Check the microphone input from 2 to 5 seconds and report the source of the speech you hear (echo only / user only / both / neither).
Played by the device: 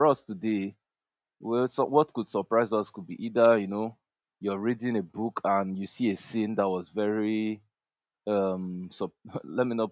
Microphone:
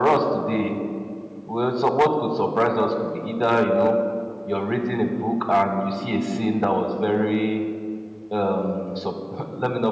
echo only